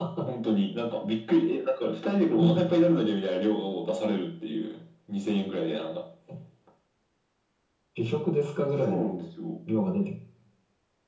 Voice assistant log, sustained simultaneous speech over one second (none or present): none